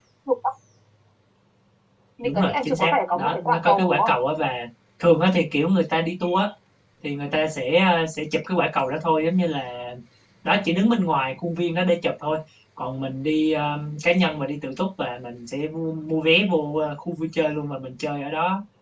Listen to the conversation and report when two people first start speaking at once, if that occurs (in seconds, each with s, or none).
2.2 s